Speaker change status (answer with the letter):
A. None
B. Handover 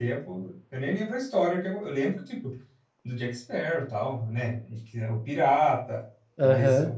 A